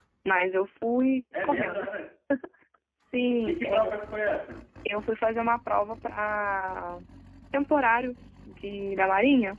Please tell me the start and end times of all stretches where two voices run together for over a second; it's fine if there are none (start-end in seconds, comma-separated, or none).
none